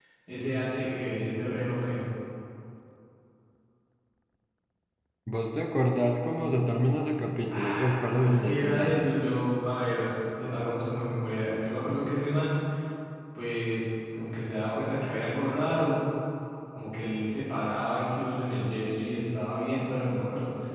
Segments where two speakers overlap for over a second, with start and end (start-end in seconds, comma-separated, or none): 7.5-9.1